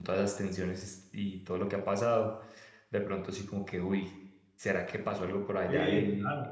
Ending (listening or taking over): taking over